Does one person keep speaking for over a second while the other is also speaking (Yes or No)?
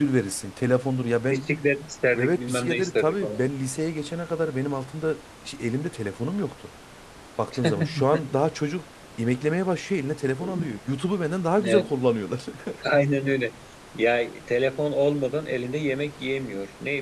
Yes